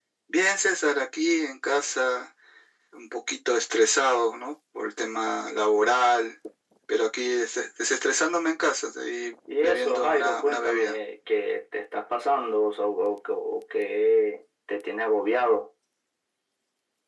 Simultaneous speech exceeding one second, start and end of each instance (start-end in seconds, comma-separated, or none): 9.6-10.9